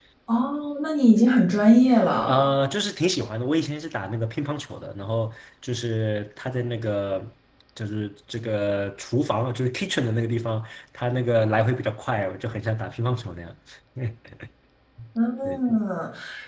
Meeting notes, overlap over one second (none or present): none